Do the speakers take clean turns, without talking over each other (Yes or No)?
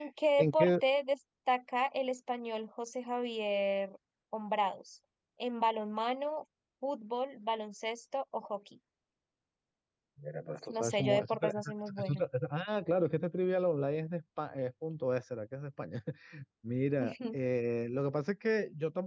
No